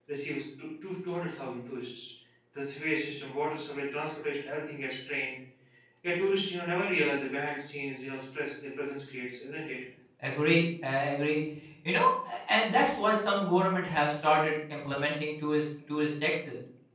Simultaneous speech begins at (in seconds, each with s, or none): none